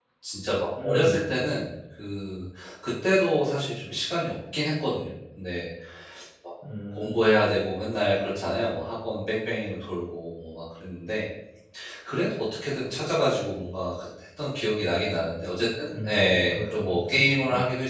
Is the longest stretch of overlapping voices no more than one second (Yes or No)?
No